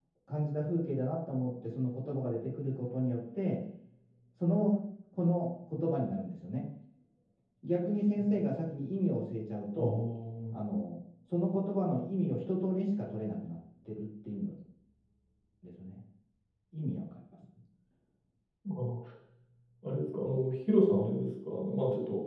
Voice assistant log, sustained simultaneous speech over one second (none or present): none